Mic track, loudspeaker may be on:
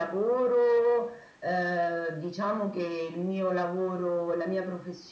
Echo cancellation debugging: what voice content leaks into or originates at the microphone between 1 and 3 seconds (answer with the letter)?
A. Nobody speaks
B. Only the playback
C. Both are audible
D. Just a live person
B